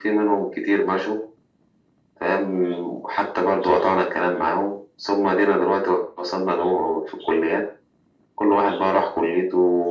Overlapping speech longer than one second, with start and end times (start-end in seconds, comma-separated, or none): none